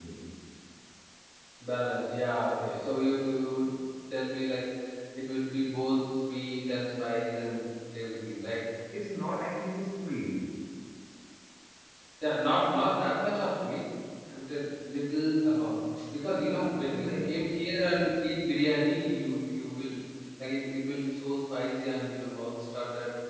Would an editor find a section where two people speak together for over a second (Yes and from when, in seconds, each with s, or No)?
Yes, from 16.2 s